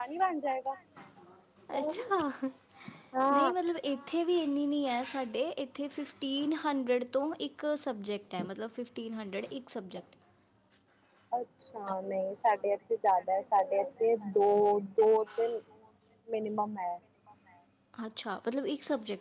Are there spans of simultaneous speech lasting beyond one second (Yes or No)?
No